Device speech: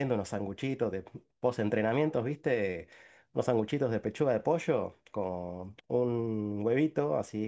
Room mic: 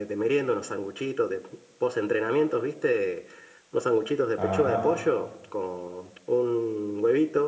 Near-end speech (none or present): present